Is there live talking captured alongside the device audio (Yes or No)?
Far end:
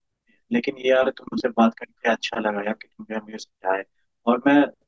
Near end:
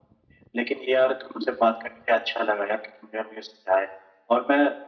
No